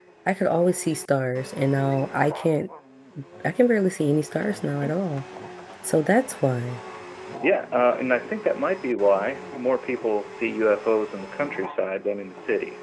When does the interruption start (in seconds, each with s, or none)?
none